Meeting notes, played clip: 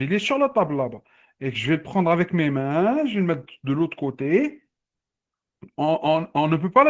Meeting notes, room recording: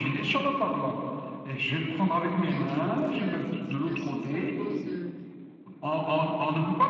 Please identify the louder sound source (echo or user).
echo